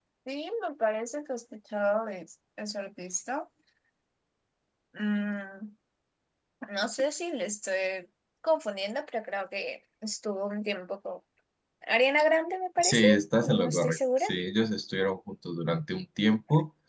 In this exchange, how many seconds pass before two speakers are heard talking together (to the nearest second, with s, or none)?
13 s